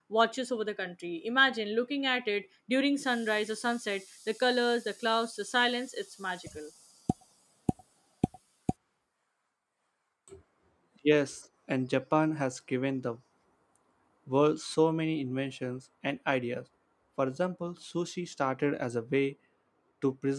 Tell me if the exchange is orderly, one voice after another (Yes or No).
Yes